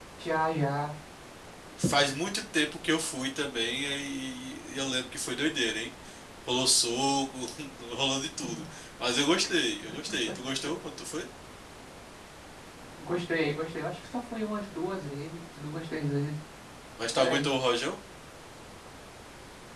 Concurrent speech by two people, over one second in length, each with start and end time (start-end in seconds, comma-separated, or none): none